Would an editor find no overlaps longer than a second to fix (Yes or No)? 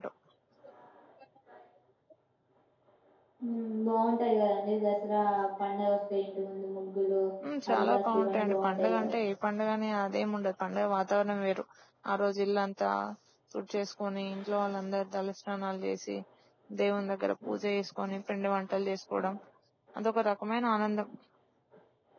No